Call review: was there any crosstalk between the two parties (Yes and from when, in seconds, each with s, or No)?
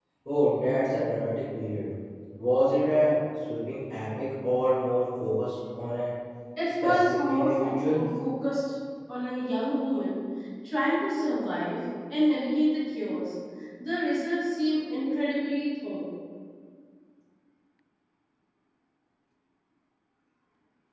Yes, from 6.8 s